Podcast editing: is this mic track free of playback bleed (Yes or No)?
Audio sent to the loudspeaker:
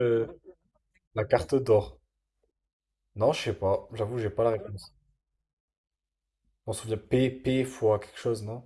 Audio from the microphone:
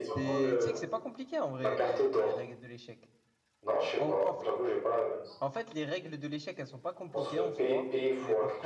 No